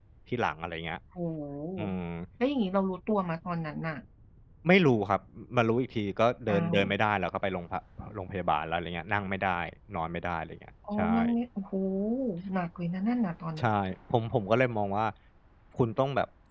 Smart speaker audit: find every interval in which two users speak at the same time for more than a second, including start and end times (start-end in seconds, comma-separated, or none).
none